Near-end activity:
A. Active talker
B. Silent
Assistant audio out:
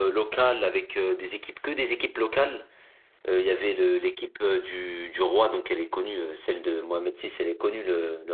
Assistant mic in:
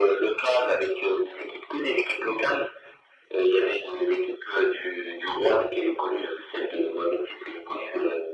B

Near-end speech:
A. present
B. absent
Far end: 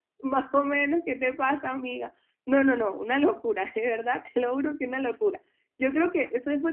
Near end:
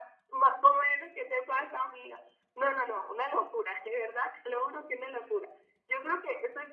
B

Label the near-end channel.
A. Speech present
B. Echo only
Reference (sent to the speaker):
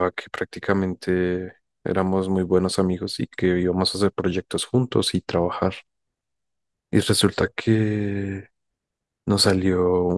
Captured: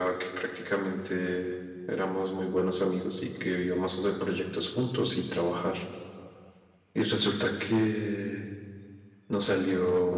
B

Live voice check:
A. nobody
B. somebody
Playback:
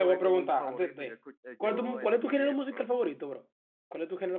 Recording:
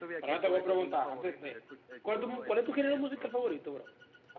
A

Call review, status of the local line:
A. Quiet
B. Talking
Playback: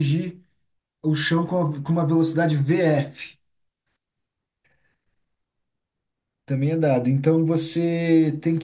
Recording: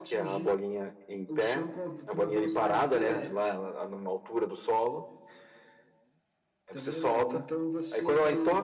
B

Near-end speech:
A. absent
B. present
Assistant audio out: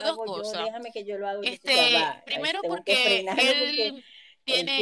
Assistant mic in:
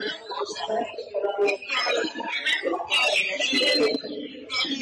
A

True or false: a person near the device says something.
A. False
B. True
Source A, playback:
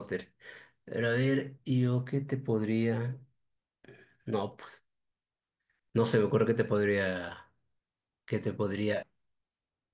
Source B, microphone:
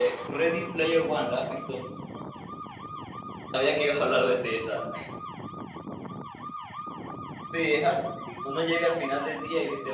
B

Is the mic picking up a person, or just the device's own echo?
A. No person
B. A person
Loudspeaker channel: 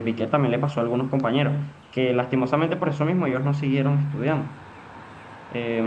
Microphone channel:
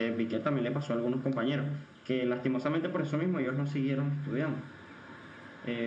A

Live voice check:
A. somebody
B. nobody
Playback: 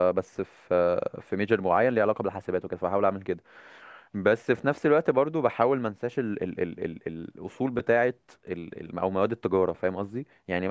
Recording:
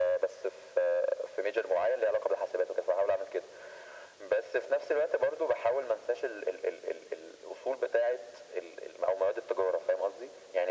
B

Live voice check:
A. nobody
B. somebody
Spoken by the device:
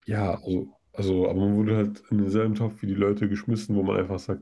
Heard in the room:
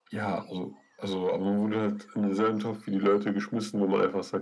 A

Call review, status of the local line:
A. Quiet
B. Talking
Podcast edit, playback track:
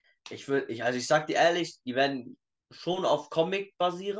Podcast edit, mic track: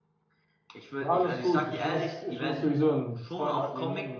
B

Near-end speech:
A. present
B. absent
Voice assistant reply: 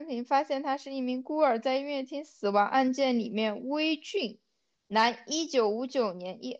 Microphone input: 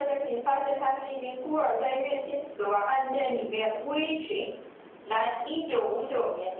B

